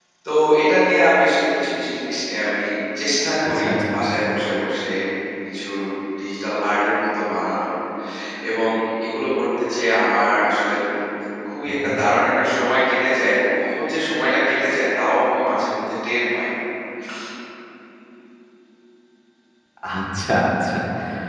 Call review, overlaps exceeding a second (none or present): none